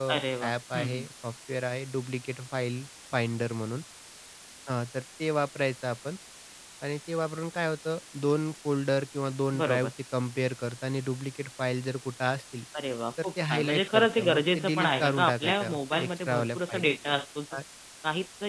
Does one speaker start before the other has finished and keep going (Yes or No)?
Yes